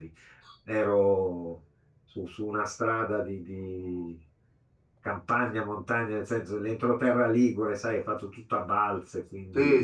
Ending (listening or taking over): taking over